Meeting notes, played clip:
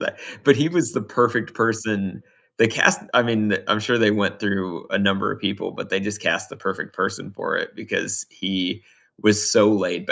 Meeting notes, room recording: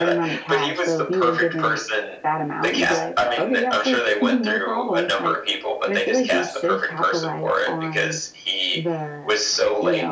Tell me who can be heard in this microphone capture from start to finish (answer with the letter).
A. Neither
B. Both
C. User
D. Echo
B